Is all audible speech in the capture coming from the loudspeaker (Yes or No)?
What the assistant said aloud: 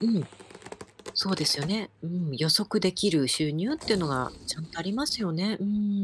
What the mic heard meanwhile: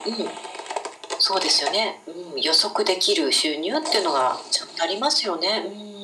Yes